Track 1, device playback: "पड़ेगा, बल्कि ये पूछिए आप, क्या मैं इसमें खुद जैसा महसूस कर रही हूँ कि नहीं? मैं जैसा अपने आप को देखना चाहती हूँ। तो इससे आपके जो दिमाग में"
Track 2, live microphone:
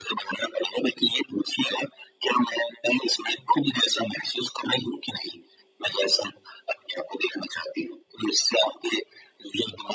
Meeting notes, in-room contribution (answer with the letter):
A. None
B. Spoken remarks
A